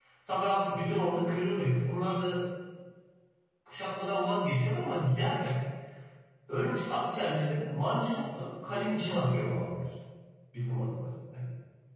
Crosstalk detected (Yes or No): No